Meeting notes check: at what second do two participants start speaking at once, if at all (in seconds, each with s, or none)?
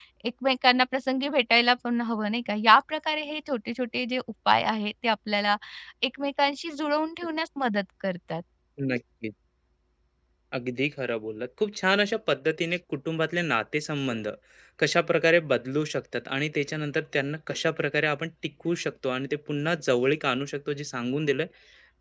none